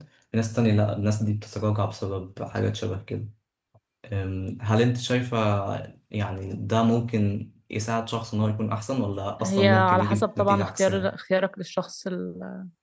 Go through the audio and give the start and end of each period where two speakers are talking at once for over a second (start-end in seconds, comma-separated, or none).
9.4-11.1